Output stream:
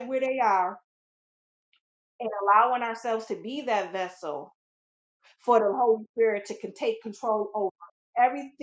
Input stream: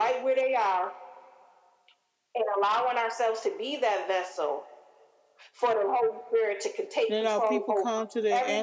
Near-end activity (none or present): present